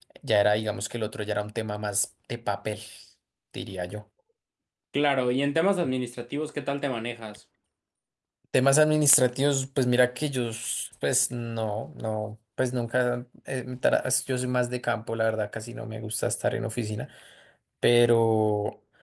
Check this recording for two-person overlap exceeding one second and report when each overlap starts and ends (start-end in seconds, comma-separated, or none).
none